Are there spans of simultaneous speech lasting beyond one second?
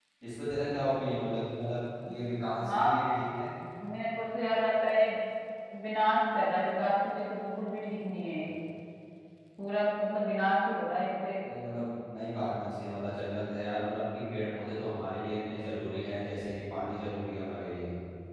No

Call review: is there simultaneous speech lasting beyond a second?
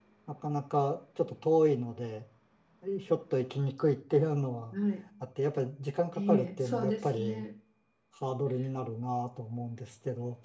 Yes, from 6.1 s

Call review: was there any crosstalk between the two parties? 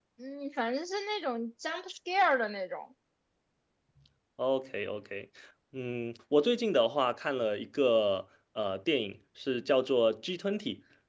No

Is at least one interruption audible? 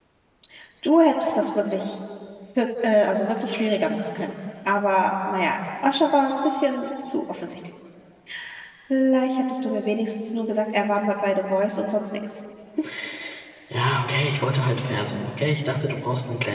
No

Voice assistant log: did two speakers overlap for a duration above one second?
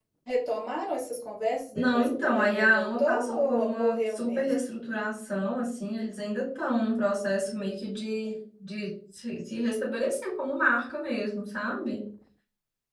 Yes, from 1.8 s

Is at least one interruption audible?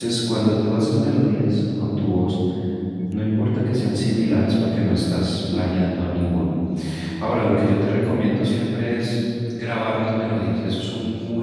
No

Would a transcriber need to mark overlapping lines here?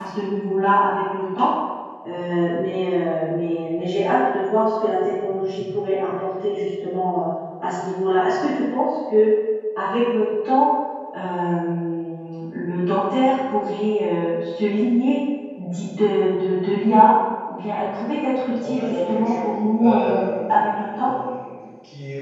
Yes, from 18.6 s

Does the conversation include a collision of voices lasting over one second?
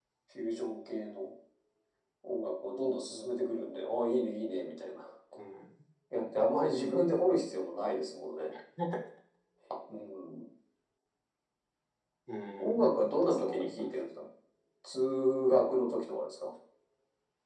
Yes, from 12.6 s

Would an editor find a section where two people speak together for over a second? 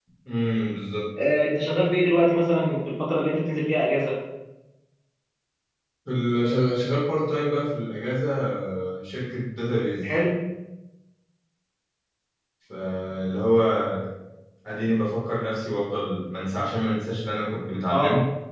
No

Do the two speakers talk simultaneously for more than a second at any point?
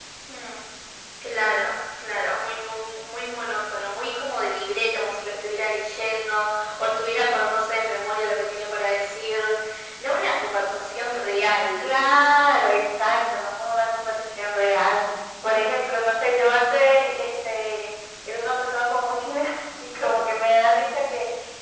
No

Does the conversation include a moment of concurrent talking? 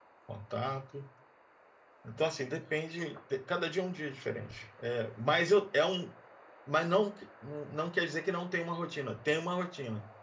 No

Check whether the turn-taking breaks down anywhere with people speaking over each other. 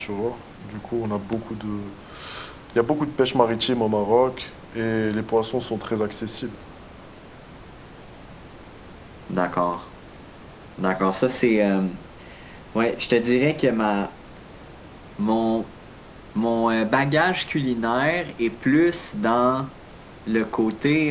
No

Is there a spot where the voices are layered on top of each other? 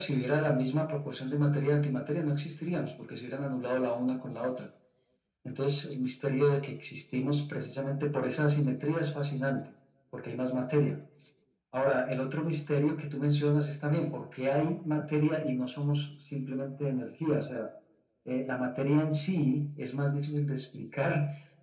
No

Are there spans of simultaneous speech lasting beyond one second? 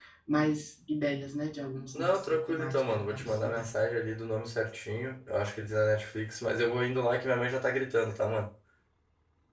Yes, from 1.9 s

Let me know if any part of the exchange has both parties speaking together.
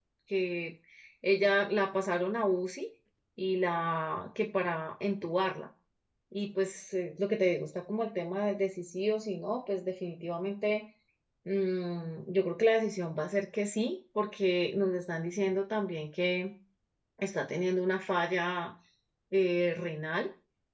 No

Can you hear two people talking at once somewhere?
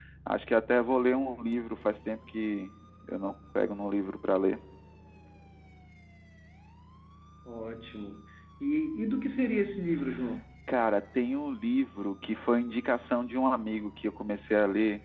No

